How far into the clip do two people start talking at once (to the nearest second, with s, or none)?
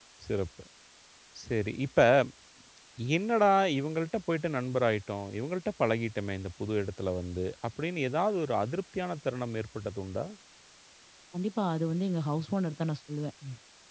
none